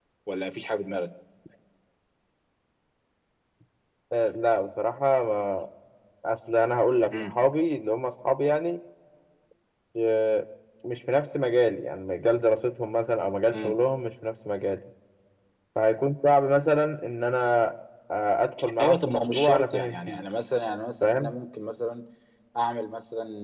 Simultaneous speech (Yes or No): Yes